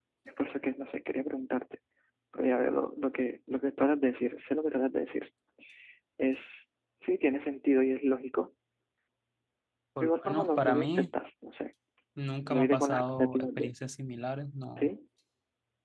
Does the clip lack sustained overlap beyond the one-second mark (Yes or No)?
No